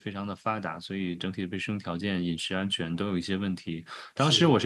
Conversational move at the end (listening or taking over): listening